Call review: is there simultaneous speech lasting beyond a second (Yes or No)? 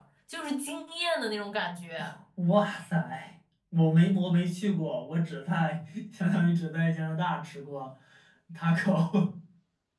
No